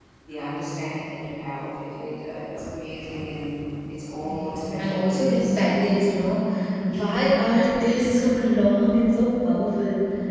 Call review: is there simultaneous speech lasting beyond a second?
Yes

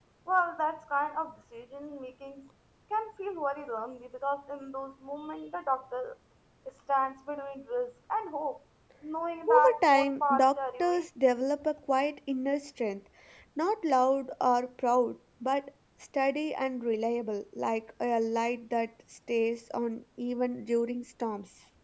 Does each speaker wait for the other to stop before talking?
No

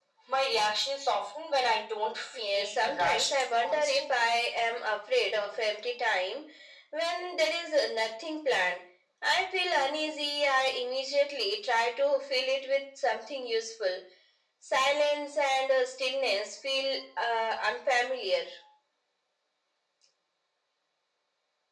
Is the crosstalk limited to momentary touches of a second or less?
No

